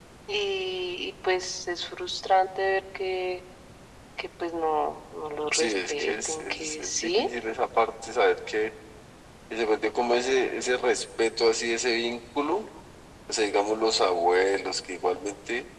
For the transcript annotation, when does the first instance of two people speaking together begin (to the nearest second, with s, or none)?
6 s